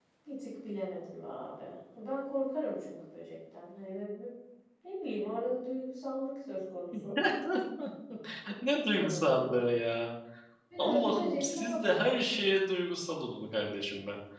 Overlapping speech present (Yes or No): Yes